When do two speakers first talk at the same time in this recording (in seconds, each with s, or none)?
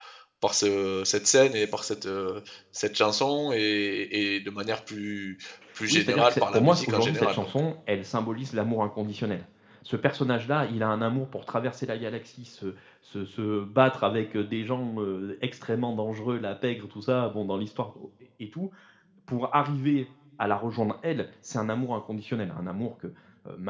5.9 s